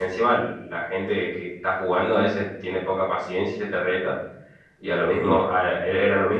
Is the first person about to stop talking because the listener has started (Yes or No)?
No